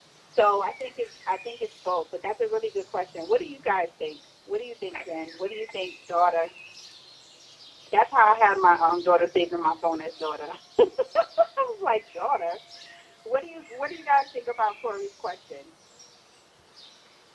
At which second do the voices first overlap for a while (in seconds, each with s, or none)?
none